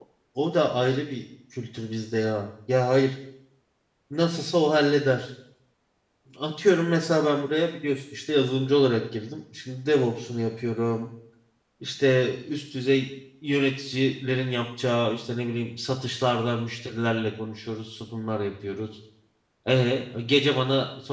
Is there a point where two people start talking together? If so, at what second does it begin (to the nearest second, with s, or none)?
none